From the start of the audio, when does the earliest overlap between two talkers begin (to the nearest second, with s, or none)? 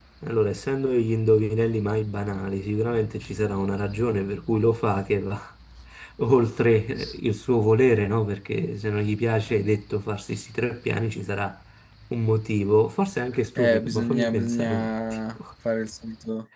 14 s